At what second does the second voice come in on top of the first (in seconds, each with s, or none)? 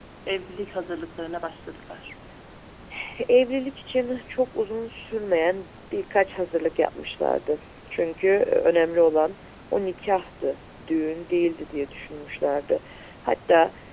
none